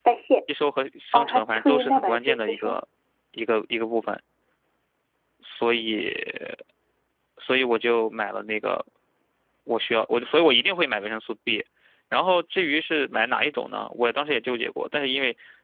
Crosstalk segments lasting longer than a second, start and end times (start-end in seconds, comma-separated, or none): 1.1-2.8